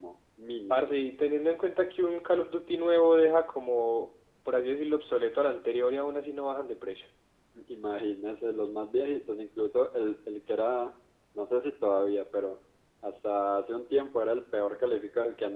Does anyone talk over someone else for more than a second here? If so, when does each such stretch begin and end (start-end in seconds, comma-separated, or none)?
none